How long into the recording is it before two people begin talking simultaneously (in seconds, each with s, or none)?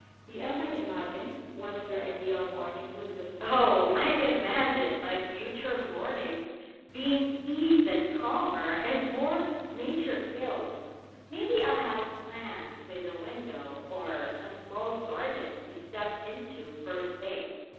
3.4 s